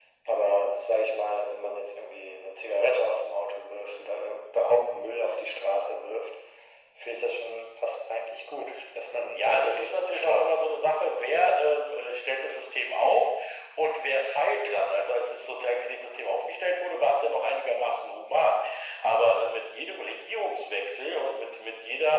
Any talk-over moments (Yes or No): Yes